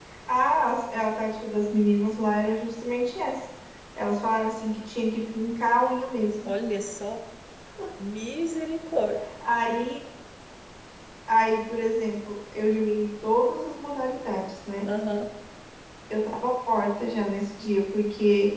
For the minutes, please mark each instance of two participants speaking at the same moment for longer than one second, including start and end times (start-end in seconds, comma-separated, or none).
none